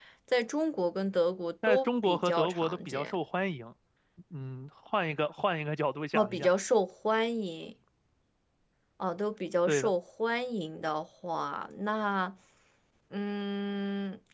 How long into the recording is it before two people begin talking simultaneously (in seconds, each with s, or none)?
1.6 s